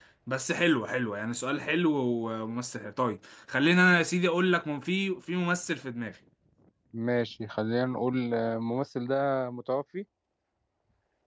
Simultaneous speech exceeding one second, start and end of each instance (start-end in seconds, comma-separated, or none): none